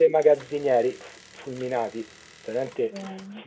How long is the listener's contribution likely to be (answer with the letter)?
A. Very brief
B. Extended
A